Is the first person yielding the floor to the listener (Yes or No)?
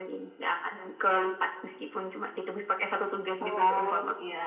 Yes